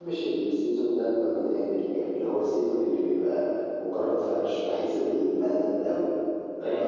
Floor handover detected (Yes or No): Yes